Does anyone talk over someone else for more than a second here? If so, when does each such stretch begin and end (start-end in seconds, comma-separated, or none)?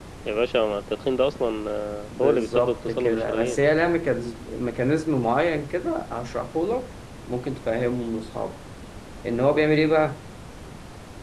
2.2-3.6